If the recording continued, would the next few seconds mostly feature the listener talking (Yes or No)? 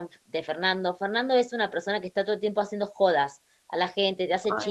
No